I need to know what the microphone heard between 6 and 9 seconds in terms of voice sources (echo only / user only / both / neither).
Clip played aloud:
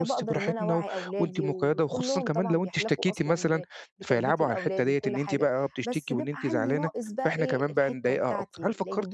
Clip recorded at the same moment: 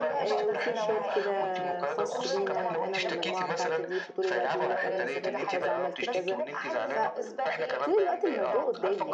both